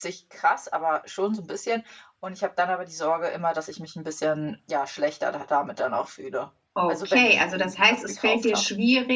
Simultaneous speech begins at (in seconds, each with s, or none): 6.9 s